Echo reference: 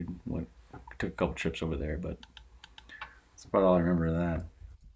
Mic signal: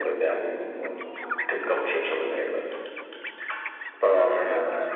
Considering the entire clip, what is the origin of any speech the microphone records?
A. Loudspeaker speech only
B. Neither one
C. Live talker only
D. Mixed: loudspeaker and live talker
D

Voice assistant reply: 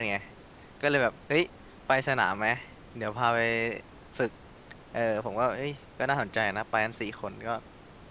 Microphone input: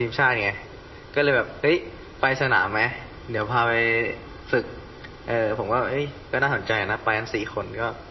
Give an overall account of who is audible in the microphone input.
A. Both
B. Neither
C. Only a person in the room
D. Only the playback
D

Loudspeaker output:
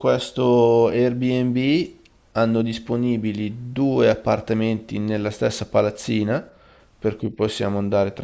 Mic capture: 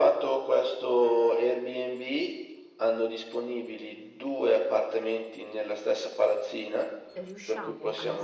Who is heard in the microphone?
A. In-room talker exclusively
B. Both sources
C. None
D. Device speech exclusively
B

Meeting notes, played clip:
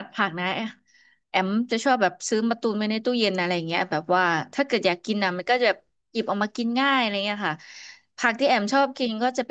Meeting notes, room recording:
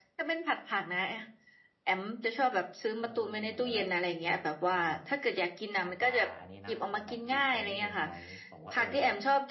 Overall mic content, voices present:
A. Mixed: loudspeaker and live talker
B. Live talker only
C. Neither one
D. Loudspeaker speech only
A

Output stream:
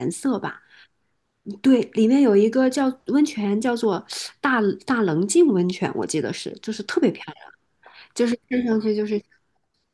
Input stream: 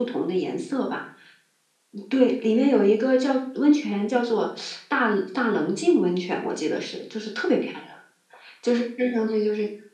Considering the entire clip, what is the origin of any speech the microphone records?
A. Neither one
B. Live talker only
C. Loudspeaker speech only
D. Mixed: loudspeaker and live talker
C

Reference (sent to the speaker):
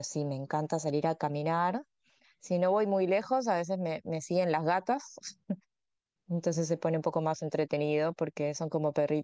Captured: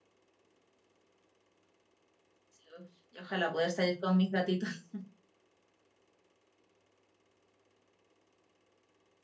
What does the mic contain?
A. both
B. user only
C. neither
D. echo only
B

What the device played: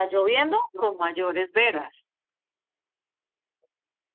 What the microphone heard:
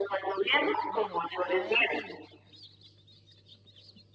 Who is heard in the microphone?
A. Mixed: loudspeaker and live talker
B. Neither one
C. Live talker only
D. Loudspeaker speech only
A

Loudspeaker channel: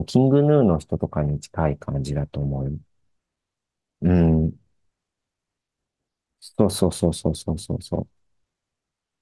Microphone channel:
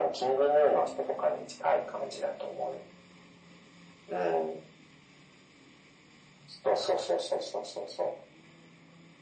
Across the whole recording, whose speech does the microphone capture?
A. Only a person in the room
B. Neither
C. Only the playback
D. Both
C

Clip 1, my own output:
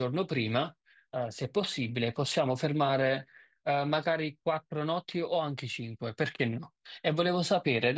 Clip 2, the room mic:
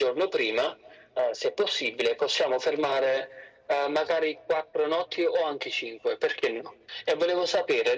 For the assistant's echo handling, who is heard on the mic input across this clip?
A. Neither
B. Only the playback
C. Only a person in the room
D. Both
B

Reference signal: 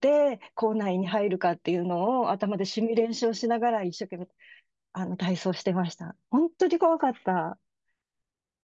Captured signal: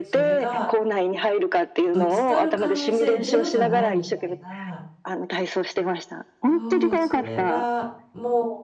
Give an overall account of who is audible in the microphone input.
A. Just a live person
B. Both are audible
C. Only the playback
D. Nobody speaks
B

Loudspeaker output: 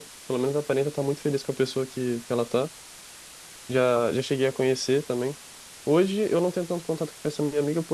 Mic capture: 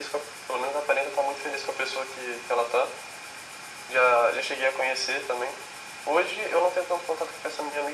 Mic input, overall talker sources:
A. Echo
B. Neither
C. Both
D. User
A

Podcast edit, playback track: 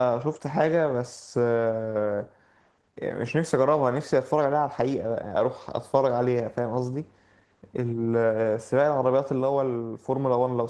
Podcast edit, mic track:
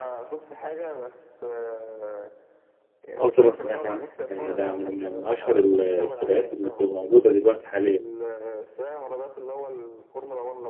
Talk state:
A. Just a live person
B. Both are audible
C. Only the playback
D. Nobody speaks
B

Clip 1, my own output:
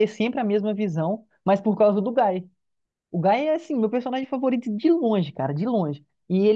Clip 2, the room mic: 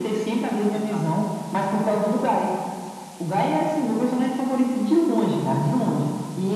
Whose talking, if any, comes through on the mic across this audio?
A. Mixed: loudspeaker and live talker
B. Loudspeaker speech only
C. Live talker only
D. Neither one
A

